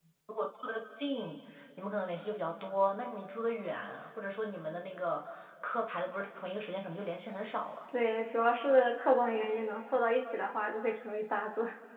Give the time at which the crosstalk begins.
none

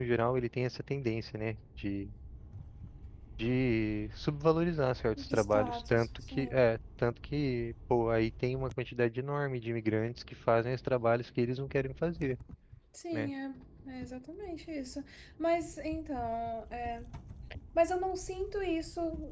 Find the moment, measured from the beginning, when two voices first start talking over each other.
5.2 s

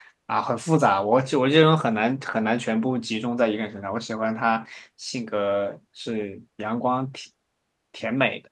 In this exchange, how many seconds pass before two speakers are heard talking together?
none

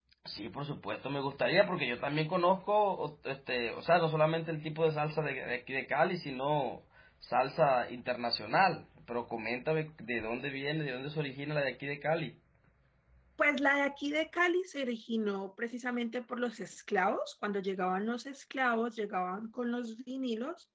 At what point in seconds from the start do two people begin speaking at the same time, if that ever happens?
none

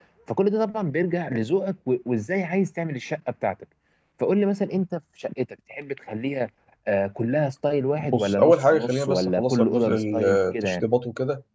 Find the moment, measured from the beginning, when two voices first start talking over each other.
8.0 s

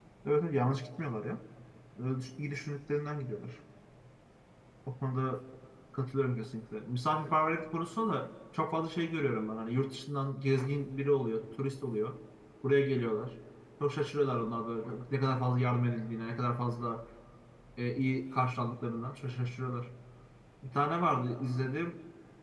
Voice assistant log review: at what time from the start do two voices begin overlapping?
none

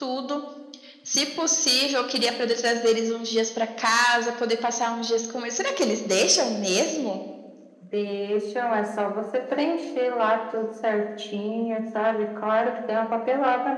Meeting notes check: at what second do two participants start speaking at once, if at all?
none

